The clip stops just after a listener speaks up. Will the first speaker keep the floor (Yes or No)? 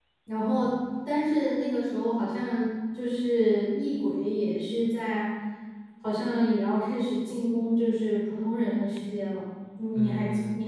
No